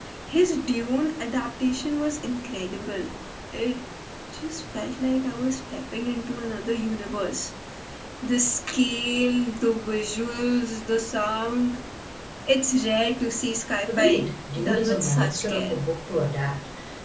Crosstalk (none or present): present